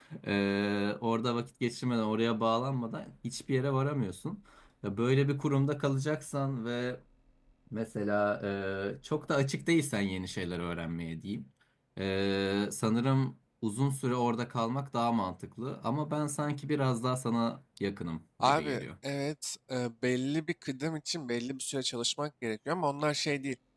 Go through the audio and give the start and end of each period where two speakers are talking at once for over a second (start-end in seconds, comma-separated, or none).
none